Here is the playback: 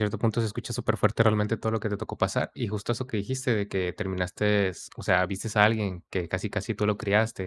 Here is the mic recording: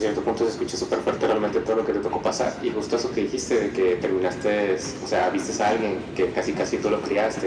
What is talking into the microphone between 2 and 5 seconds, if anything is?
echo only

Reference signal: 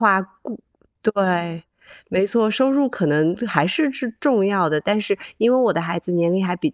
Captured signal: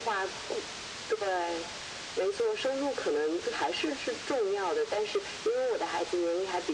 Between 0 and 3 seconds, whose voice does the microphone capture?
echo only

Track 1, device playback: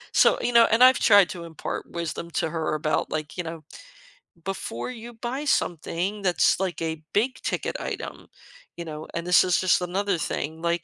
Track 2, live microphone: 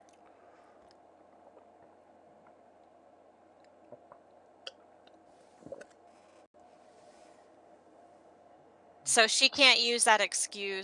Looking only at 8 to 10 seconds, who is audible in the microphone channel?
user only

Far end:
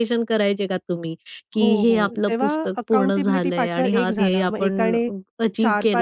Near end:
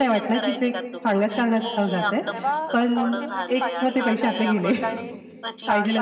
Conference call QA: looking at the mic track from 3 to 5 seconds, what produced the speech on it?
both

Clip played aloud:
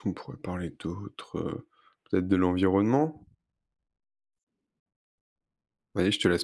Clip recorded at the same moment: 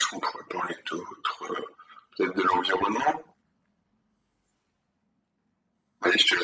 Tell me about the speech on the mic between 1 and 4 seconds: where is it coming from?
echo only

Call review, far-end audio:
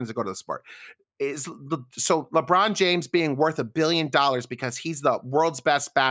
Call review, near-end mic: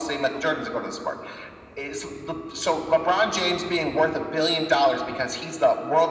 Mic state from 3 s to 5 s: echo only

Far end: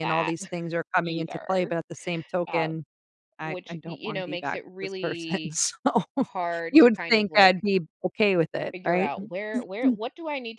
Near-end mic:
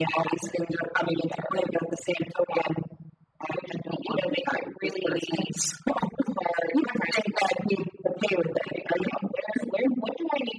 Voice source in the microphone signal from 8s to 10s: echo only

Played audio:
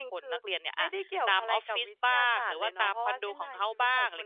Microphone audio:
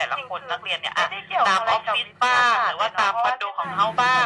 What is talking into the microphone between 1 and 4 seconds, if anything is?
echo only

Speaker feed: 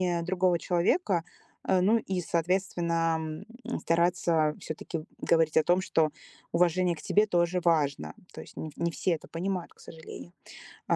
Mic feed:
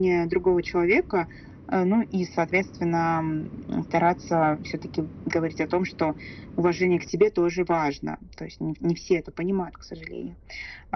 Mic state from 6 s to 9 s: echo only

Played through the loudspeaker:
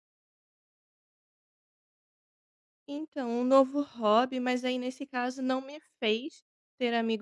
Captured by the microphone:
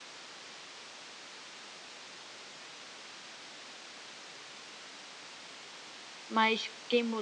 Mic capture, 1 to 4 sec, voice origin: neither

